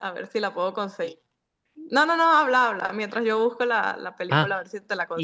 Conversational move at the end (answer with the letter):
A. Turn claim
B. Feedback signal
A